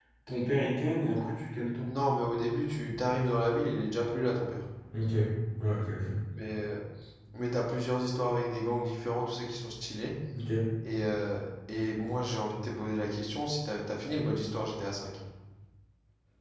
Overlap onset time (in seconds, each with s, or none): none